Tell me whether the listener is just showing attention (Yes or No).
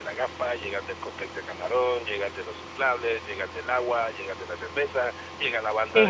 Yes